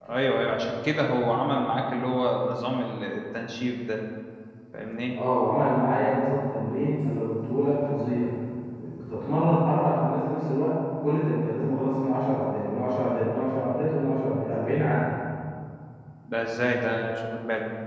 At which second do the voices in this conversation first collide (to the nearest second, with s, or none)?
none